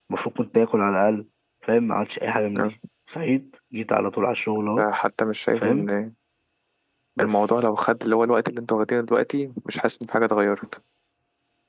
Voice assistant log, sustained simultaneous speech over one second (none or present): none